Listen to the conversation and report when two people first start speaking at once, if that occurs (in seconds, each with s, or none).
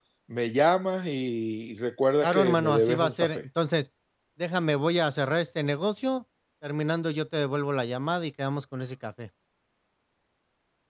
2.2 s